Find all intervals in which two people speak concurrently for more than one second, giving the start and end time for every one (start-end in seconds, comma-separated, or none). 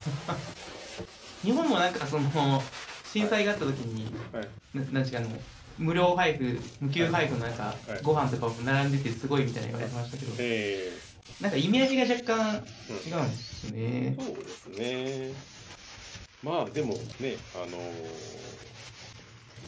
none